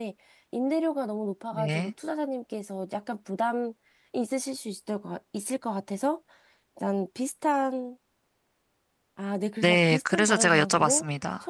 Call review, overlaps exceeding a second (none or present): present